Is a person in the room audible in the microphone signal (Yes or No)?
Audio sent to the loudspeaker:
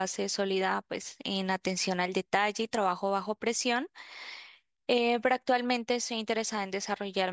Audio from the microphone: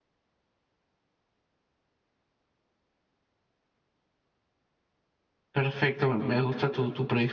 Yes